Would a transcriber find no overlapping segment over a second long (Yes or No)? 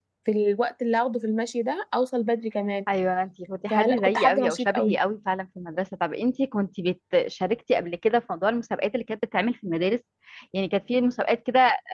No